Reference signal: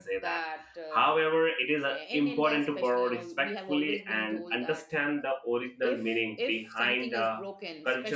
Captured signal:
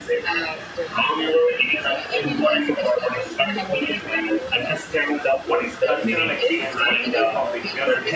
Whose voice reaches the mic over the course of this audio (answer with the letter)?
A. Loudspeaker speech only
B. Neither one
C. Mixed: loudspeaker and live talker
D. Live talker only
C